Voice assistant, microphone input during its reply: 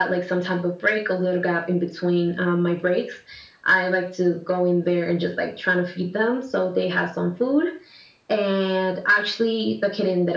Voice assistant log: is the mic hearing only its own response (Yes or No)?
Yes